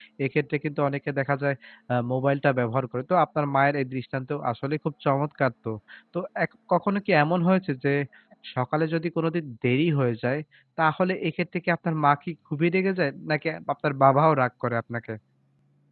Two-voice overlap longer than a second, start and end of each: none

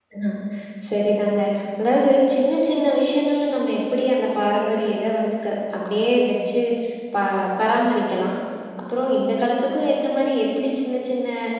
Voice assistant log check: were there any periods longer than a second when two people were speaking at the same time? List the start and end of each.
none

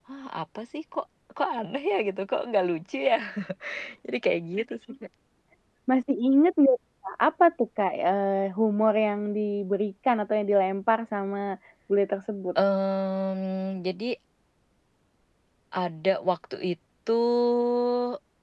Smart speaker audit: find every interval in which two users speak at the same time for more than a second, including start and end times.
none

